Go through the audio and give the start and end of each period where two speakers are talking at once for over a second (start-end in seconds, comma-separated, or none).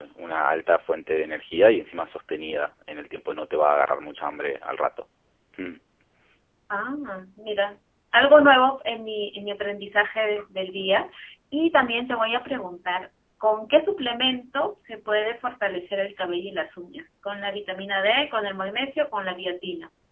none